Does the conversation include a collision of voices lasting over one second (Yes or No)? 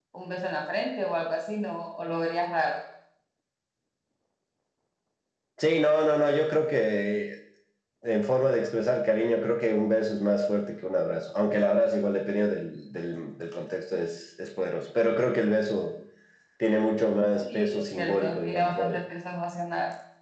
Yes